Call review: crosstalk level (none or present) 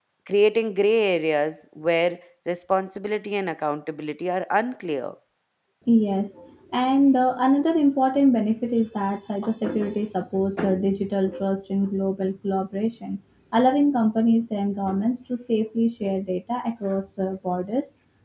none